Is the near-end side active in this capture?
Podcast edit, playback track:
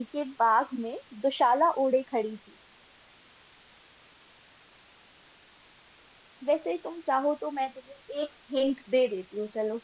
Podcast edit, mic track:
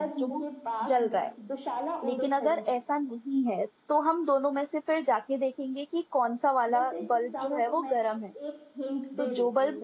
Yes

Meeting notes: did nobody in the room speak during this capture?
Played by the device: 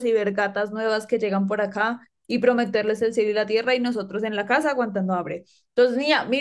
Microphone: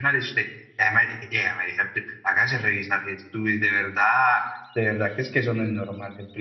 No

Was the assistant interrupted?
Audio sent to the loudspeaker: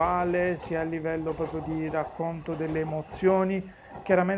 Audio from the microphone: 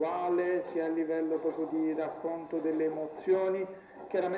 No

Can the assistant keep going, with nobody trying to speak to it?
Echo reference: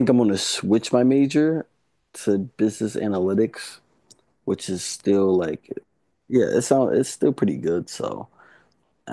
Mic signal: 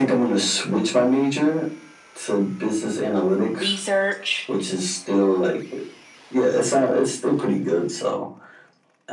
No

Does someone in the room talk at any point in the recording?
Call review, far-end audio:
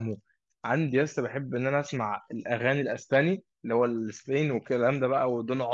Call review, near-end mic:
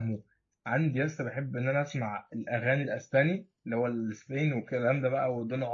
No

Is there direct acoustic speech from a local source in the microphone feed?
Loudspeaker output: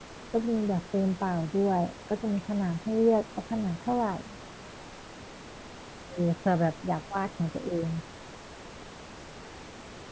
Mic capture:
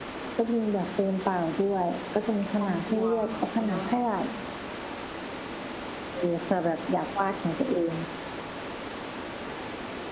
Yes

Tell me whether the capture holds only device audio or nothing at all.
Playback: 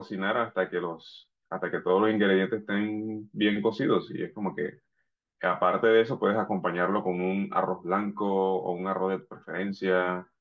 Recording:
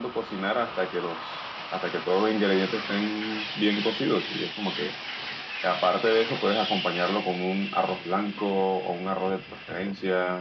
Yes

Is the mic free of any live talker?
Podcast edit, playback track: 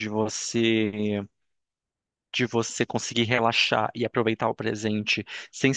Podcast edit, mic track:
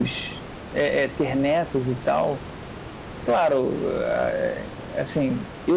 No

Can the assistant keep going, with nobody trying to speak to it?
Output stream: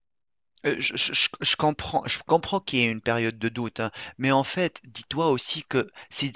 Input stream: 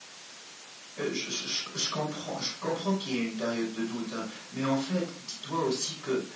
Yes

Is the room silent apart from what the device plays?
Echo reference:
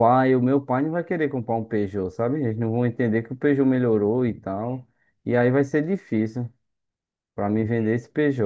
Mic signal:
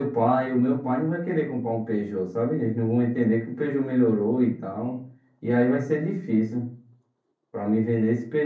Yes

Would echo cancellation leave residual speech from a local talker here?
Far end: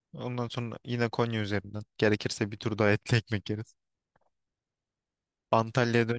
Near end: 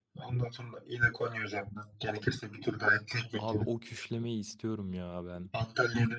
Yes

